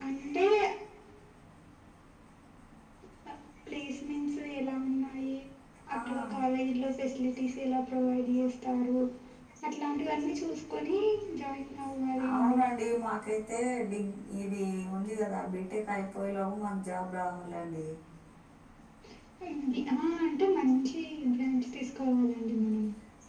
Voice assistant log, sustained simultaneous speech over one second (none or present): none